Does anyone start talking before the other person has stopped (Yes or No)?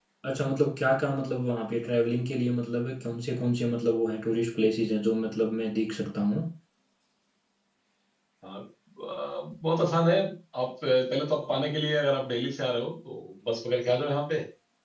No